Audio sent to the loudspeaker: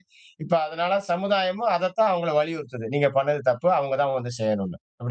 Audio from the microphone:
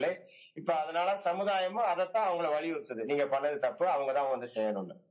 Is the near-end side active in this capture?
No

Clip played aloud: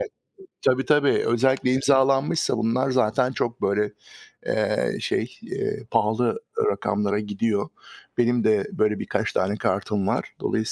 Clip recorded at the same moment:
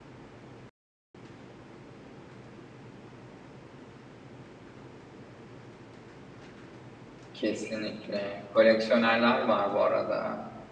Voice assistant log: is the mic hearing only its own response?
No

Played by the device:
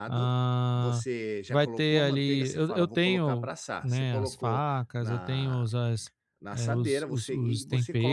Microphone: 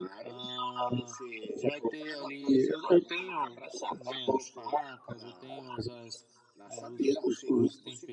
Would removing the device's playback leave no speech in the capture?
Yes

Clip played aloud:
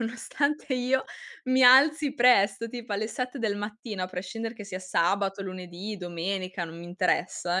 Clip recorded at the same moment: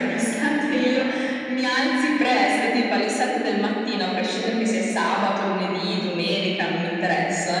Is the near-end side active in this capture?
No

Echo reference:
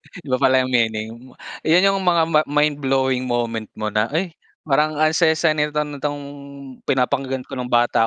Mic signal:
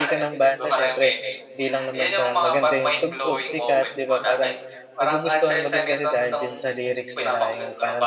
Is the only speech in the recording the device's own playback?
No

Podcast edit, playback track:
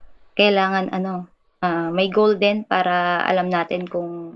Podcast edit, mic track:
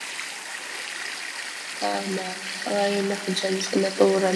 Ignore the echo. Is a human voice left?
Yes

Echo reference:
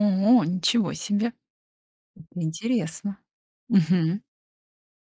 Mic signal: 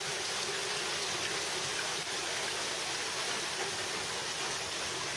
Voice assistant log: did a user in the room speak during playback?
No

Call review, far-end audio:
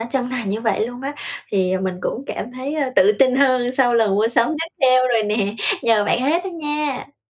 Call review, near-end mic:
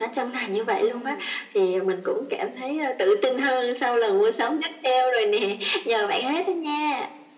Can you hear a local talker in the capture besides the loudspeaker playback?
Yes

